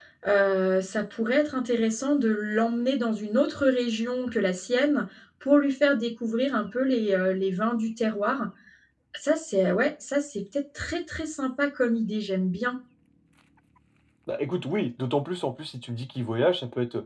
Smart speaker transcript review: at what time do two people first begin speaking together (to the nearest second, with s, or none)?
none